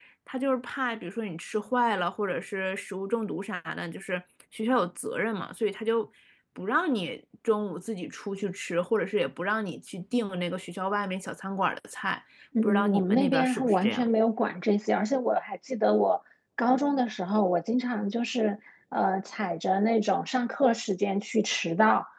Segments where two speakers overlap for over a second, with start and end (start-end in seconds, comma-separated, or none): 12.6-14.1